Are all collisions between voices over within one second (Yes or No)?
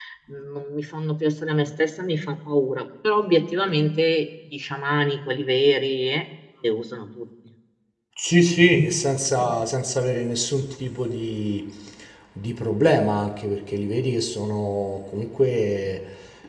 Yes